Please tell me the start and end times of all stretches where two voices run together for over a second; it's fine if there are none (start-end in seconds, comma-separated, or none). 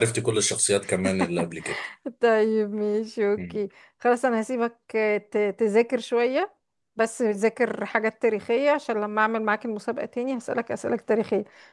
none